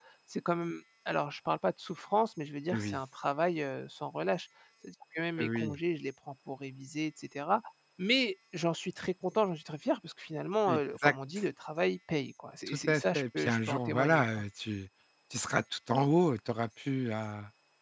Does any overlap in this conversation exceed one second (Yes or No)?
Yes